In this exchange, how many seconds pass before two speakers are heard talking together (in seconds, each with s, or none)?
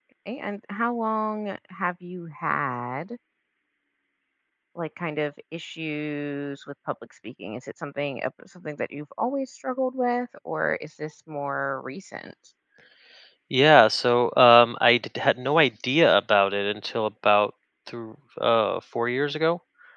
none